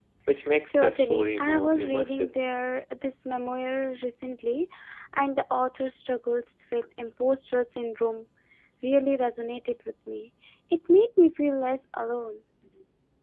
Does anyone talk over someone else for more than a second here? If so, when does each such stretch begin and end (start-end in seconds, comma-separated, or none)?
0.7-2.3